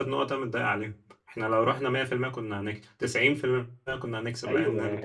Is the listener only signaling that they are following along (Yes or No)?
No